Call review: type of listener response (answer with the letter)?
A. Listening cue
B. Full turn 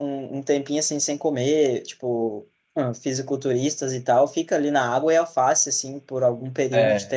A